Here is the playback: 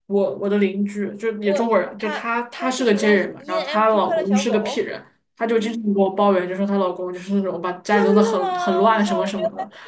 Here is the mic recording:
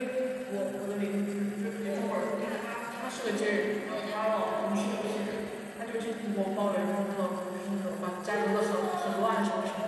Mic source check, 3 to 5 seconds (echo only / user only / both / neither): echo only